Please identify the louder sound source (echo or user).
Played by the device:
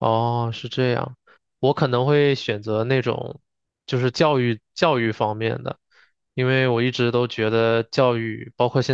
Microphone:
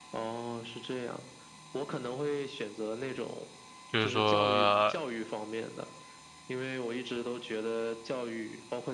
user